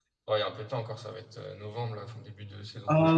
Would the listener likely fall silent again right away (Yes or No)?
No